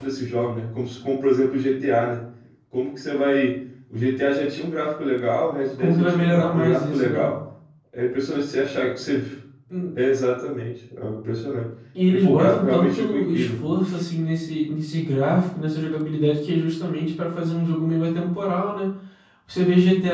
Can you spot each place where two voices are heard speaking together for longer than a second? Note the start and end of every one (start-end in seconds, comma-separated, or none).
5.8-7.2, 12.1-13.5